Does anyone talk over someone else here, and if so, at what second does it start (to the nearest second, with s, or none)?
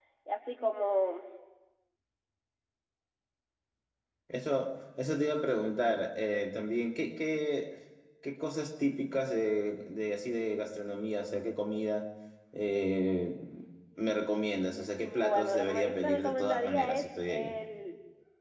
15 s